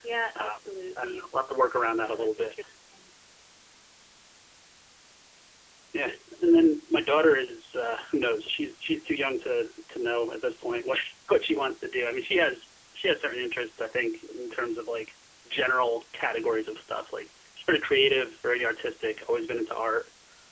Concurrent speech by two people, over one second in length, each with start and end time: none

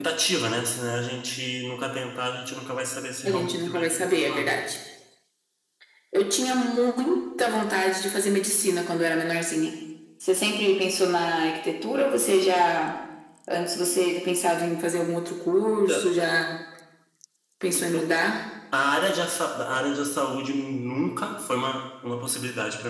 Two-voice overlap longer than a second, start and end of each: 3.2-4.5

